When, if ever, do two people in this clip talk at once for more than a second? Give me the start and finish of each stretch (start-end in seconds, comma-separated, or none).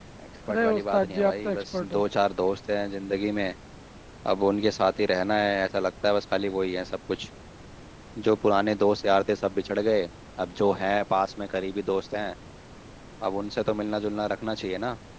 0.5-2.0